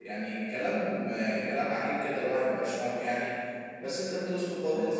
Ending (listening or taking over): listening